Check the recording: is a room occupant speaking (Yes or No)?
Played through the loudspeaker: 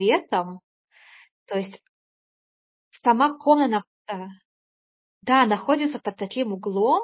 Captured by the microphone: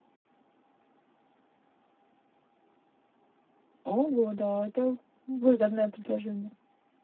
Yes